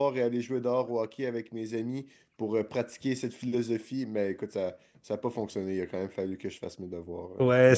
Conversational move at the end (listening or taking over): taking over